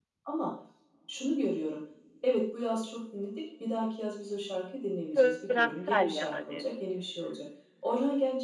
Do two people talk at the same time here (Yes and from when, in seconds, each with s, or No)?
Yes, from 5.2 s